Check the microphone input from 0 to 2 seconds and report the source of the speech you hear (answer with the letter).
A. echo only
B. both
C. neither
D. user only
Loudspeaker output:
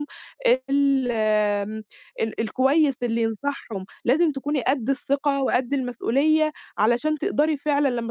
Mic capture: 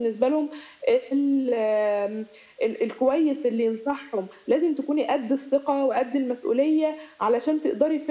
A